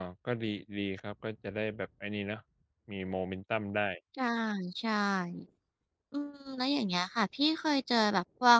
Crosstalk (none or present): none